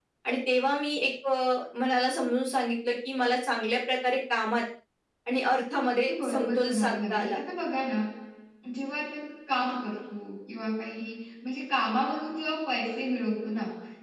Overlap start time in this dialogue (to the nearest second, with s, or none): 6 s